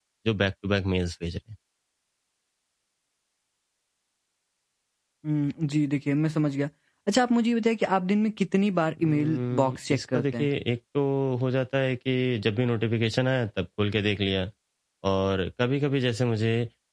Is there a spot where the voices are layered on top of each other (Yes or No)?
Yes